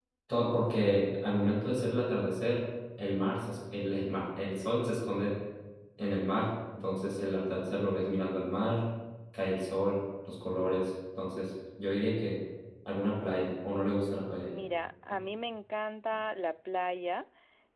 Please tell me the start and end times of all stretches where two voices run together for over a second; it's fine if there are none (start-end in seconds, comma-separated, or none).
none